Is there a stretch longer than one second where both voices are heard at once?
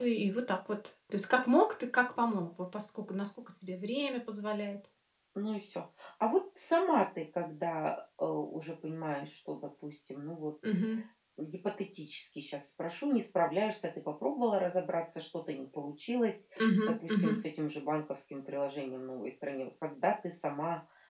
No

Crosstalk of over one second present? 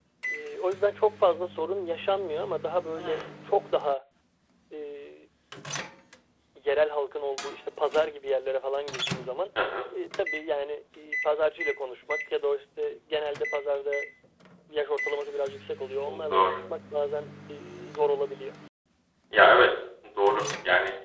No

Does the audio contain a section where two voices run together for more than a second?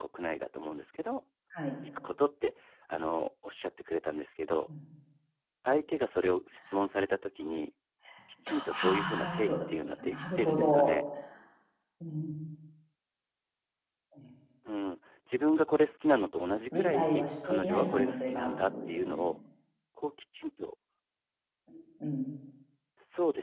Yes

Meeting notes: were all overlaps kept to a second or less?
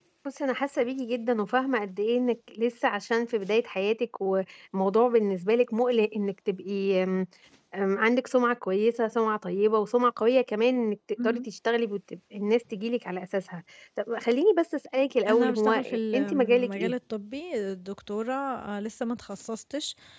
No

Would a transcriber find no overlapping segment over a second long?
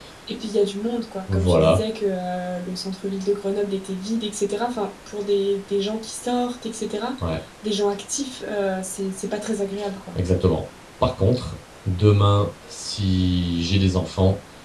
Yes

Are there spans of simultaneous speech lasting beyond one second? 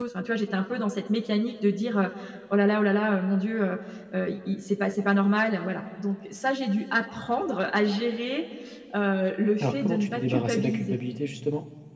Yes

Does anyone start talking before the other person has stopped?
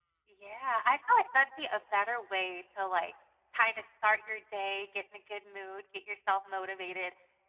No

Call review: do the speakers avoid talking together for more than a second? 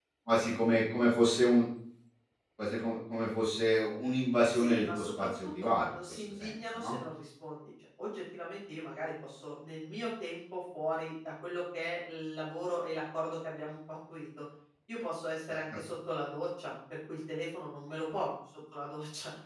No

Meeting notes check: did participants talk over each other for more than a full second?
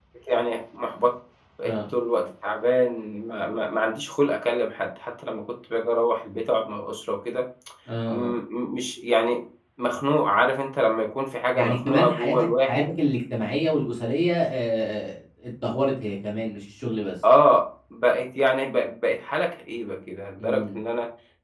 Yes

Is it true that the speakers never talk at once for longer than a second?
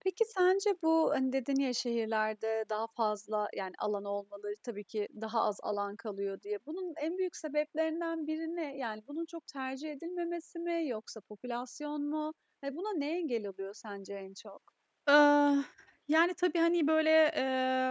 Yes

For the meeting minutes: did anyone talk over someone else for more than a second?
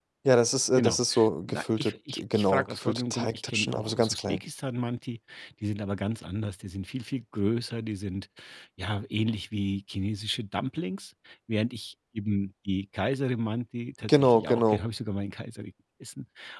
Yes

